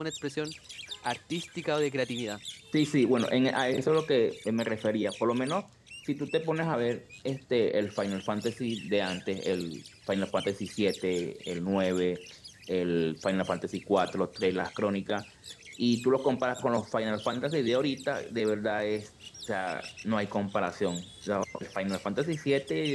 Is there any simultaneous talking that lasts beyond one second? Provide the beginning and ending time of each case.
none

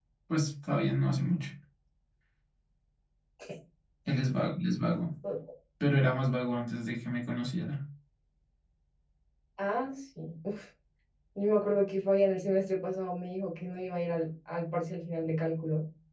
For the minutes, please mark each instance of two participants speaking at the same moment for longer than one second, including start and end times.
none

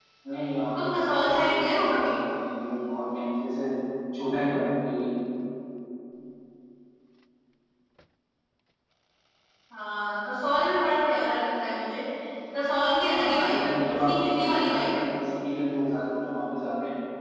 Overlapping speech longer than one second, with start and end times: 0.8-2.1, 13.1-15.0

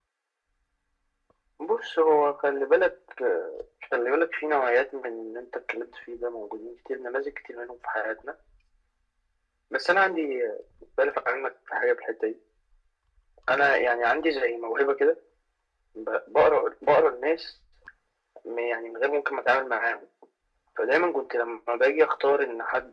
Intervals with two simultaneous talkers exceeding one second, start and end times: none

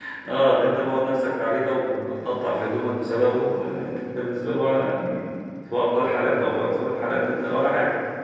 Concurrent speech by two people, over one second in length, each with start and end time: none

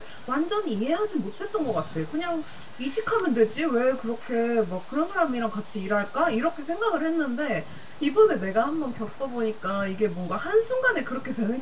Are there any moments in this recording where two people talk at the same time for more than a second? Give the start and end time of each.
none

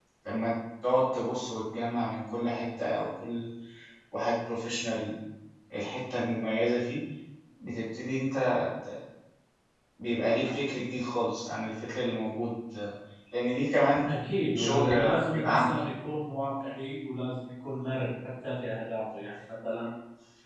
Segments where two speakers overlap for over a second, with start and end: 14.6-15.8

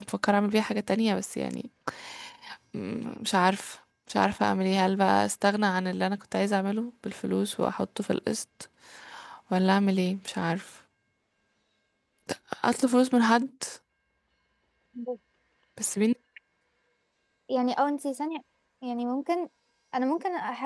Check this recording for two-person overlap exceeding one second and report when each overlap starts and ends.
none

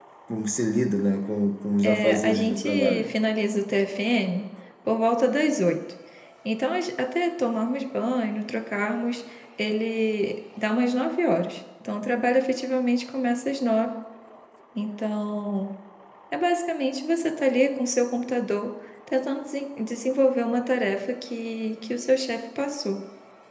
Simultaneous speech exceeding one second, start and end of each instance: 1.8-3.0

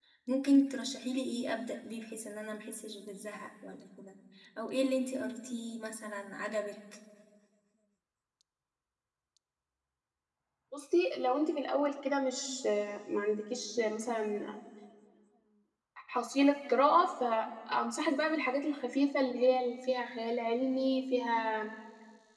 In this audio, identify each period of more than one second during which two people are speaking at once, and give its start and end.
none

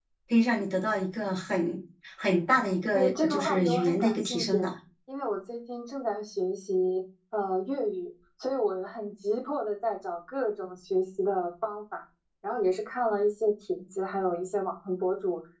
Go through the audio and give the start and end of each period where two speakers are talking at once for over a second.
3.0-4.7

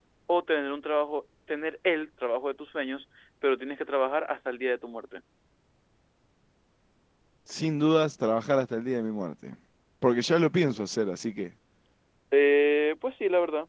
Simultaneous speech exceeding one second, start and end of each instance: none

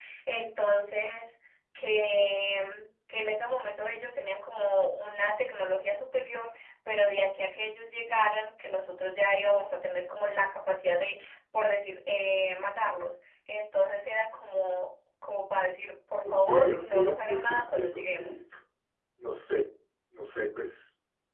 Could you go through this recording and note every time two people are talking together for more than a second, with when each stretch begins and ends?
16.2-18.4

